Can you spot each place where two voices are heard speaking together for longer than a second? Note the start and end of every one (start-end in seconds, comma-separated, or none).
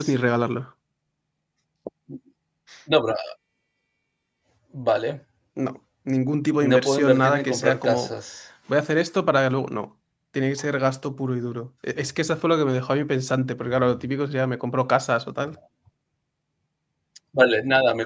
6.6-8.1